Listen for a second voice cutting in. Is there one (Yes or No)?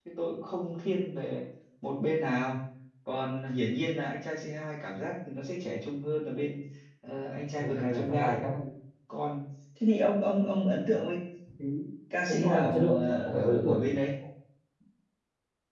Yes